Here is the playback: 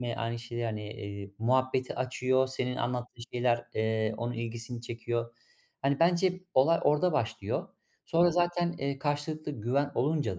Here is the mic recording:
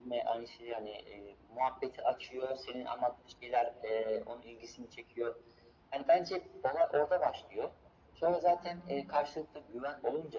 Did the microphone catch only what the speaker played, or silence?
No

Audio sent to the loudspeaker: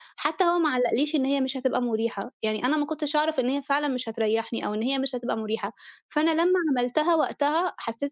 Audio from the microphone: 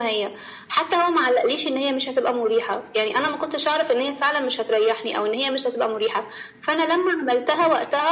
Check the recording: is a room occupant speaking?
No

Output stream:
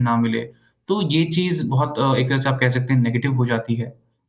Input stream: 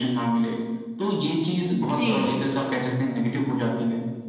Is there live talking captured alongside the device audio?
Yes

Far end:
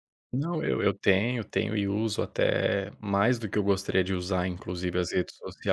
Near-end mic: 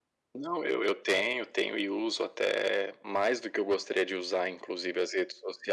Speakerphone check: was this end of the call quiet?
Yes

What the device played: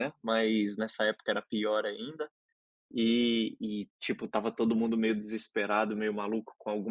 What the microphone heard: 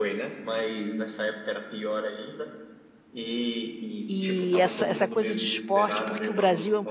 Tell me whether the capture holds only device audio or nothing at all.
No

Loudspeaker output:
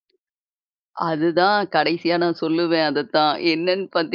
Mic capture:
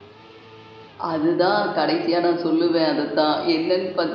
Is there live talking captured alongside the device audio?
No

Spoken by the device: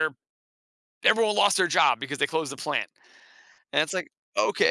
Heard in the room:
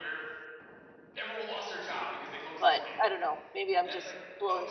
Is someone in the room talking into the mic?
Yes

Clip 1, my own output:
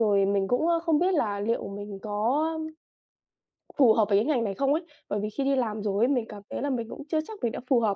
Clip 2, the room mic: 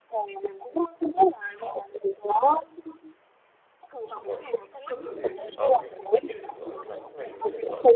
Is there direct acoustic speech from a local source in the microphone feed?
Yes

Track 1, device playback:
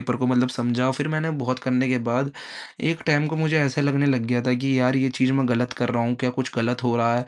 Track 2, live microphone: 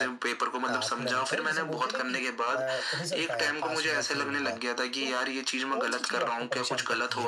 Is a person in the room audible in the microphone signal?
Yes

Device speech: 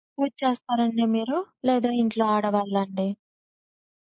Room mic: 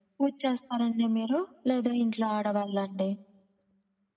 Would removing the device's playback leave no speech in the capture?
Yes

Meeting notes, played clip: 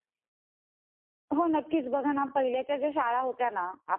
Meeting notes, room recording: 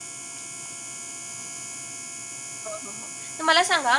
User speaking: Yes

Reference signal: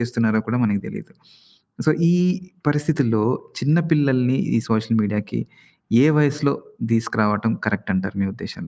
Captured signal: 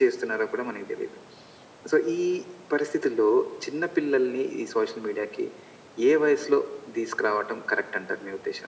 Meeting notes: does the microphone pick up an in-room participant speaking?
No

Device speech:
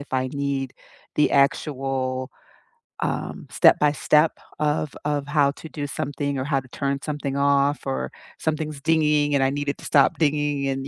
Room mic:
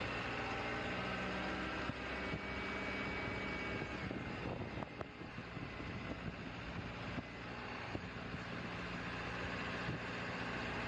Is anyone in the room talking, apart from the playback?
No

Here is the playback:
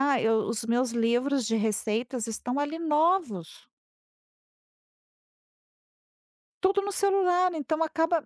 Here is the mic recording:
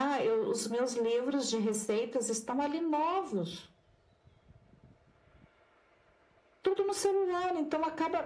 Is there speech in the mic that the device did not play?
No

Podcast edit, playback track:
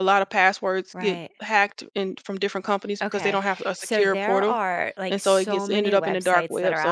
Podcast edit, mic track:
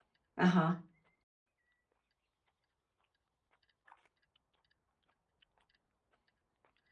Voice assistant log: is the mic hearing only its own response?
No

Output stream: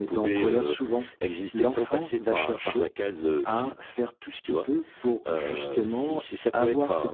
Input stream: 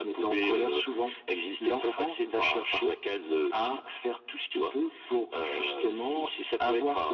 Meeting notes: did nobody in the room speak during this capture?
Yes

